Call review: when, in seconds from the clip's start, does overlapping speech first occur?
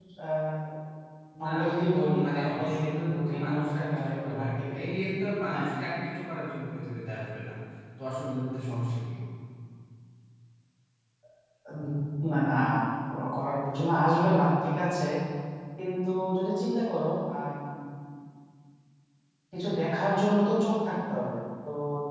1 s

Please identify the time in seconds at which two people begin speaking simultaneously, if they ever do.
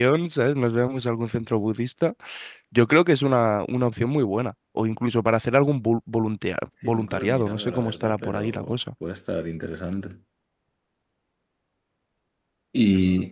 7 s

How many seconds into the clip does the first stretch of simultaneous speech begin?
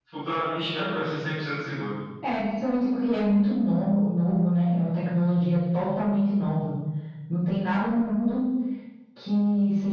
none

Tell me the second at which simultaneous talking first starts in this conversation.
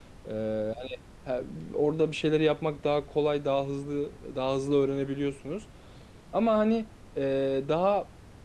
none

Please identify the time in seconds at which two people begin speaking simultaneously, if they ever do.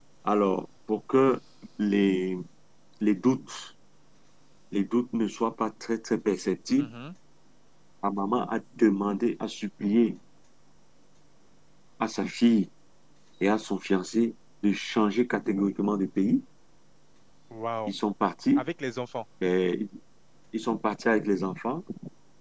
none

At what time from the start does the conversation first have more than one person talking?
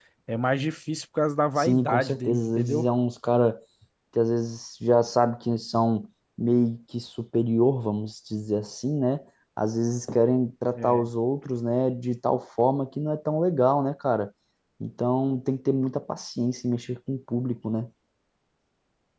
2 s

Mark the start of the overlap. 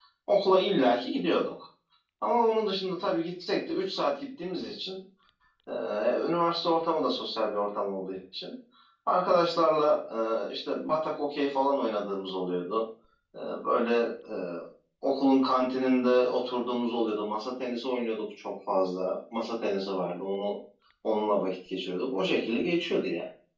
none

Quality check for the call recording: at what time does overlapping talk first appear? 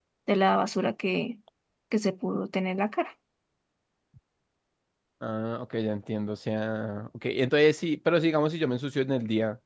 none

